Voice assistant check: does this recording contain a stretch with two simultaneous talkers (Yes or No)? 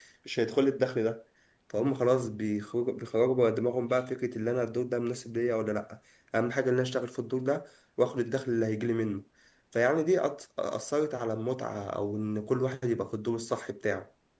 No